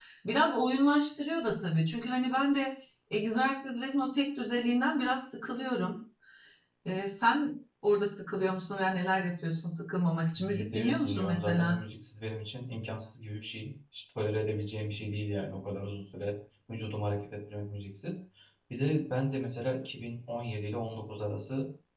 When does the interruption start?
10.3 s

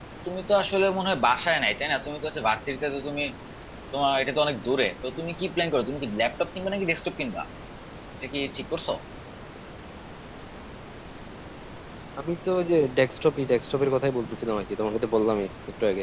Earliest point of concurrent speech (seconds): none

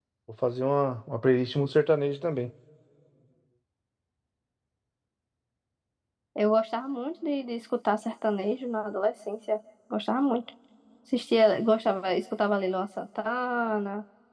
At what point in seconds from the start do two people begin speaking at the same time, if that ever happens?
none

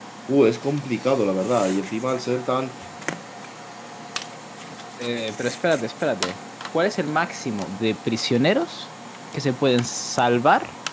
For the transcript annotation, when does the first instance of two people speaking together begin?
none

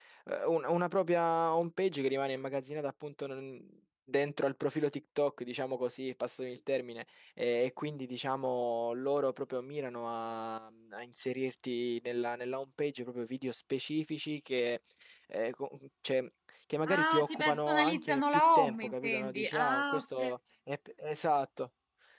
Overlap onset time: 16.9 s

